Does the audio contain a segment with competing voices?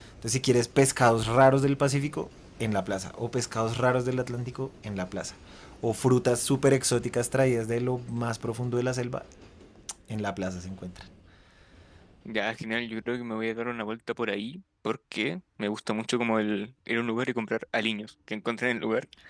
No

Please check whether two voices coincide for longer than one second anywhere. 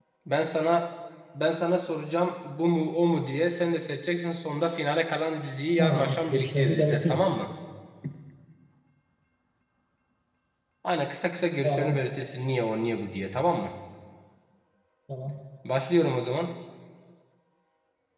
Yes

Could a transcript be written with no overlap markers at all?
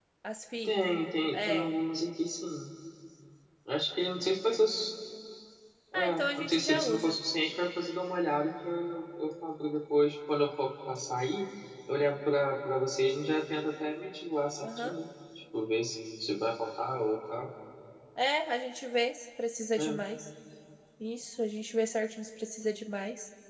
No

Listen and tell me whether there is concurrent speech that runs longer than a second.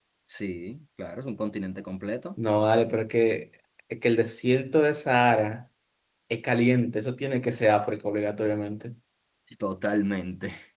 No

